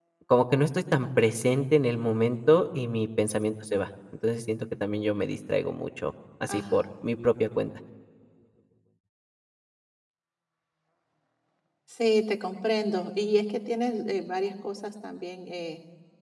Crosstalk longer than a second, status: none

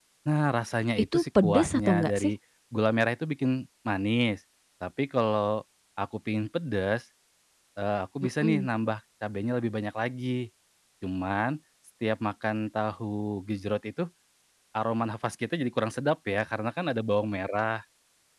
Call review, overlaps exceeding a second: present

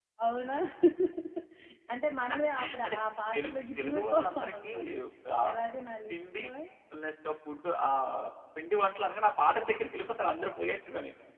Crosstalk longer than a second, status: present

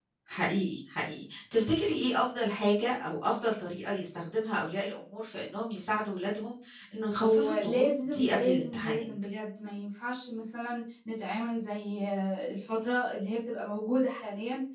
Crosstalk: present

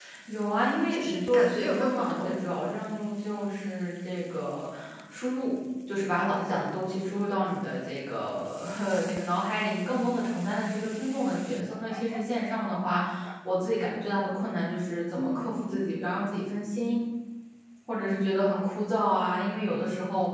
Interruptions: present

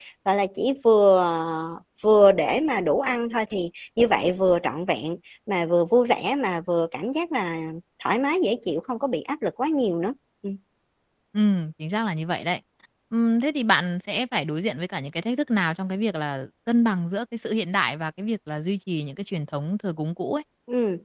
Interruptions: none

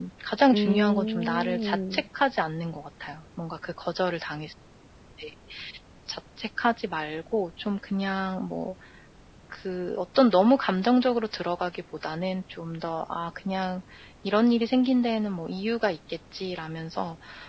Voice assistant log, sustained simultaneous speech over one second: present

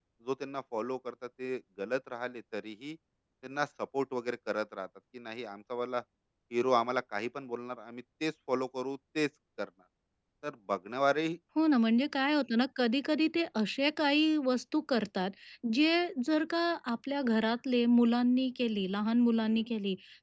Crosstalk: none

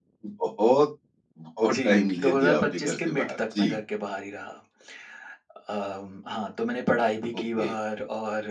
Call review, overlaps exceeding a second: present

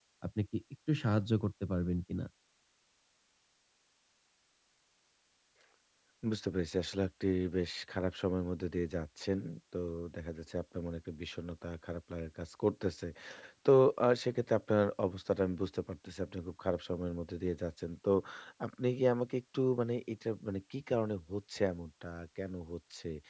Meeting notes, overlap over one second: none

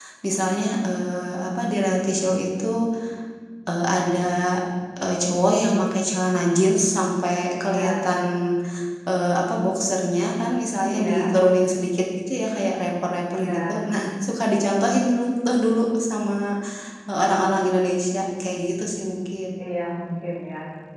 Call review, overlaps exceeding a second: none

